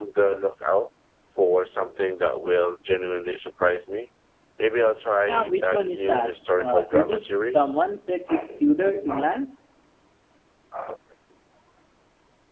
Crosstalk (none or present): present